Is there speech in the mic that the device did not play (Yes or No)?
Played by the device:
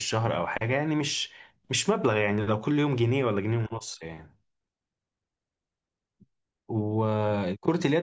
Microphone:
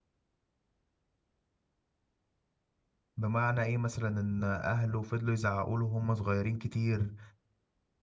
Yes